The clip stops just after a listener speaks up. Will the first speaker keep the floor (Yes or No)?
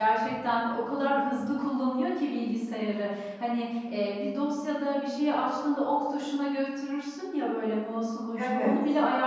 Yes